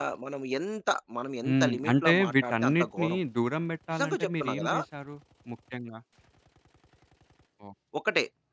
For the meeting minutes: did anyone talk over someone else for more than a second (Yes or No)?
Yes